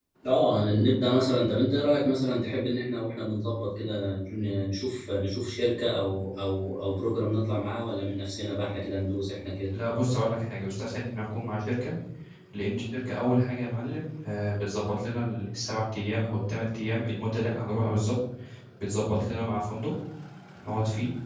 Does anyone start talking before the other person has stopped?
No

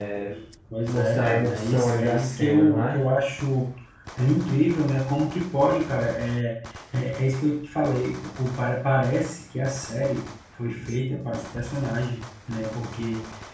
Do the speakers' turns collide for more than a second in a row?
Yes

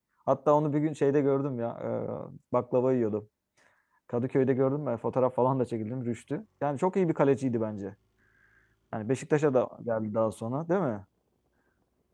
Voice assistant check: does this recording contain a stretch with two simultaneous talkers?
No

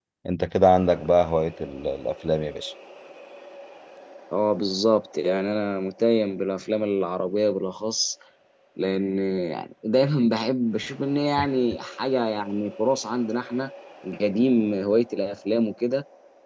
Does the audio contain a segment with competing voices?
No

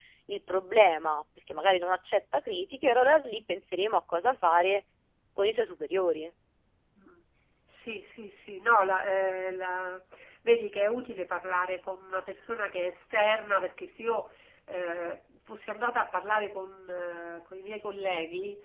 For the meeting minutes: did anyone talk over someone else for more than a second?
No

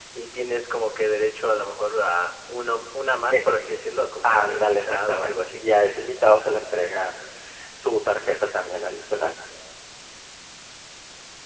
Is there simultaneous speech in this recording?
Yes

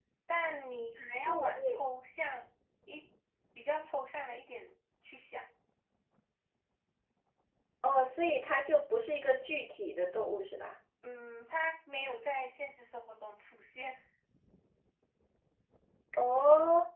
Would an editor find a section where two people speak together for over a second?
No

